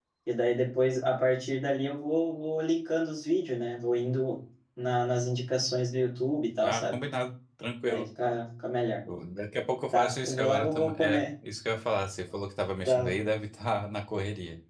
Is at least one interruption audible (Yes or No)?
Yes